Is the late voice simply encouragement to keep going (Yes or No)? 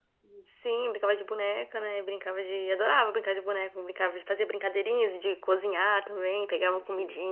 Yes